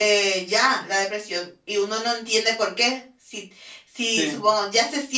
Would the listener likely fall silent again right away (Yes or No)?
Yes